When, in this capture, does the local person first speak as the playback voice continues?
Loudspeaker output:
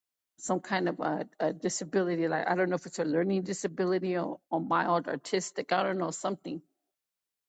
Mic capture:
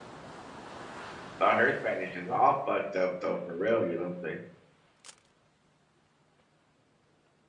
1.4 s

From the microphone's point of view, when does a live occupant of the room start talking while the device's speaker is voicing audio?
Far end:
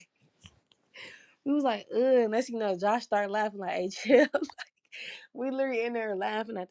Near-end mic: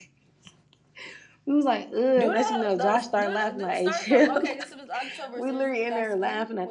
2.2 s

